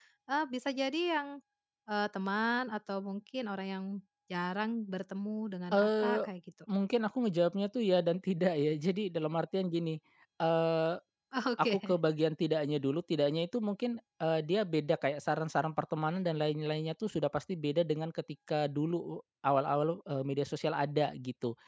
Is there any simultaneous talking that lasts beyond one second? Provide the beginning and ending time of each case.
none

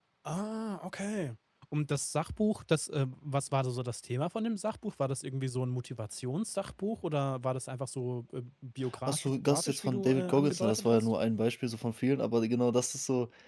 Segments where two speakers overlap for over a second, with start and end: 9.1-11.1

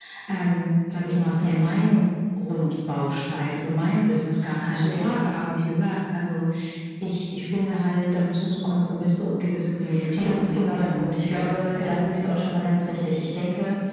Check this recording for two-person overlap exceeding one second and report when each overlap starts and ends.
10.2-12.1

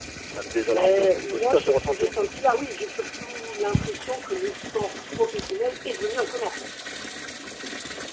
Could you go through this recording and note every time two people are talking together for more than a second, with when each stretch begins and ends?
0.7-2.1

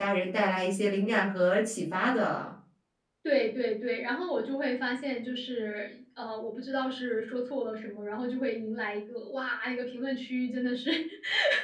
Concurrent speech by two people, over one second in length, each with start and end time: none

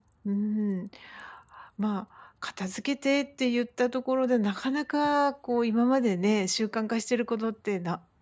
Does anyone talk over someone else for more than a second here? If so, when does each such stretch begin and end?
none

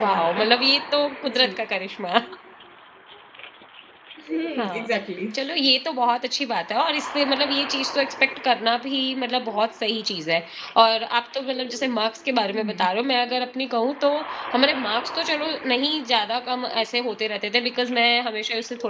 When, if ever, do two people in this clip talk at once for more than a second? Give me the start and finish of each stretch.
none

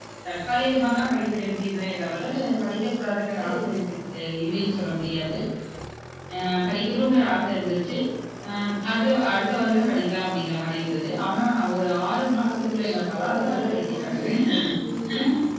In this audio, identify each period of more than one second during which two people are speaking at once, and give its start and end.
12.5-14.3

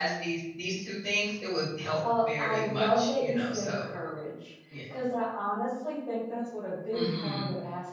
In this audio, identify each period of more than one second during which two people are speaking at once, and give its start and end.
2.2-3.9

